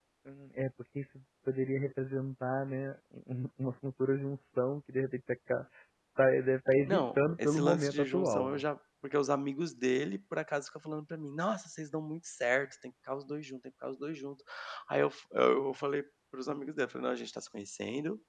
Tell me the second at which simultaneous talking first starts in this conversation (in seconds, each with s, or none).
6.8 s